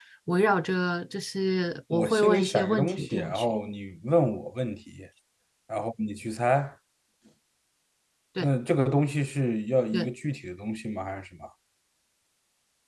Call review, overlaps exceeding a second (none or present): present